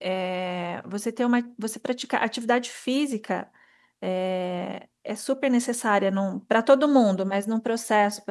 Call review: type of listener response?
listening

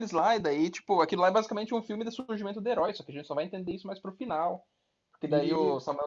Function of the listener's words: listening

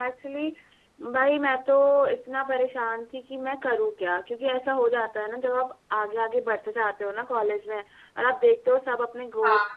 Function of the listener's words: listening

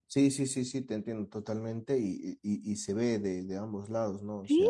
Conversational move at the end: taking over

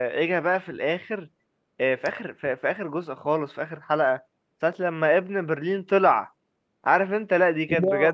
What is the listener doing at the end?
listening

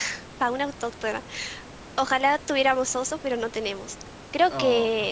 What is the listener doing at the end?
listening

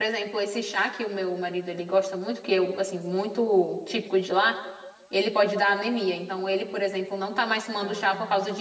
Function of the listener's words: listening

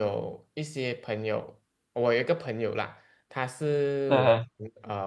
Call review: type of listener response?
listening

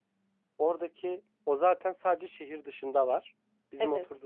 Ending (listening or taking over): listening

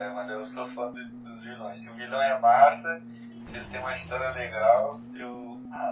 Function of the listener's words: taking over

